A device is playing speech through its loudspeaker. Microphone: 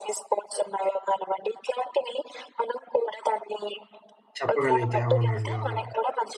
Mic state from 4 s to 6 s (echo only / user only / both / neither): both